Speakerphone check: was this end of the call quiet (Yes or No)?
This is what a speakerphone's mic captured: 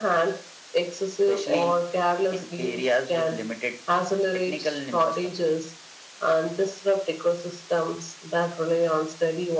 Yes